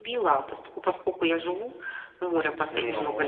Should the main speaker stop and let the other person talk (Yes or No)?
No